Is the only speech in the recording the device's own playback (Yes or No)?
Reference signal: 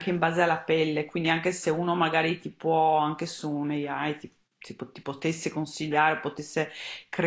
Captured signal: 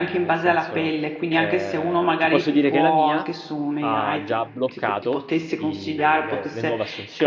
No